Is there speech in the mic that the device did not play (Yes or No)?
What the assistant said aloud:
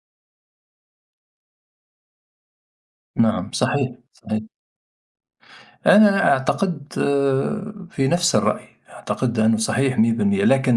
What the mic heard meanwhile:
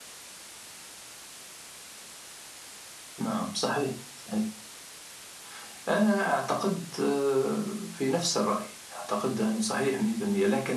No